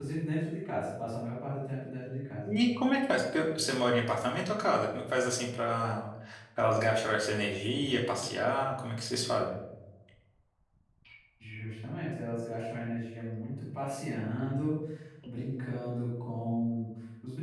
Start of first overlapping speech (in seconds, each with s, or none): none